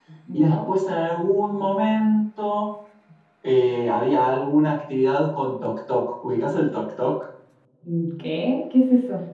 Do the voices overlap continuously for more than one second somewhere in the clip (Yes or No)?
No